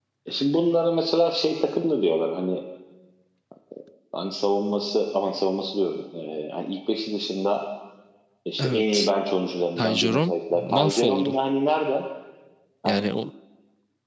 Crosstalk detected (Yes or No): Yes